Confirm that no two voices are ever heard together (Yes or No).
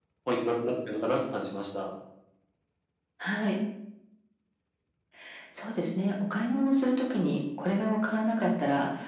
Yes